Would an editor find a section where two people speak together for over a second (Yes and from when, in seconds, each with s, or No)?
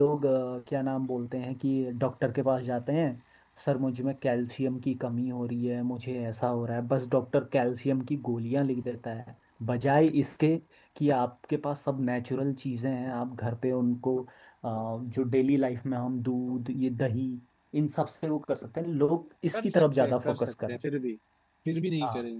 Yes, from 19.5 s